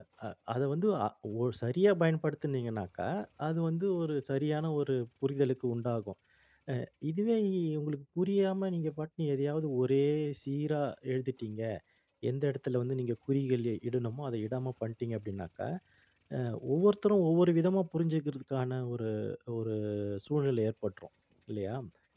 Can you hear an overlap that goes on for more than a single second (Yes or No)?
No